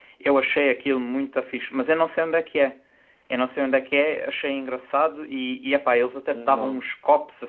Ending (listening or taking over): listening